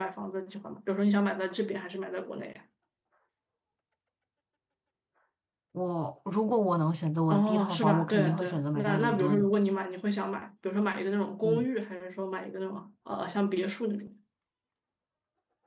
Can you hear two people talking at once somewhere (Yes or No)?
Yes